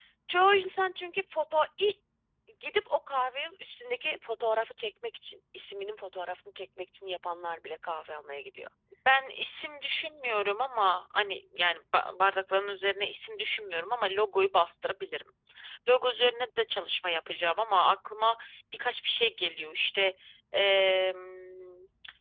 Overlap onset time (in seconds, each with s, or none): none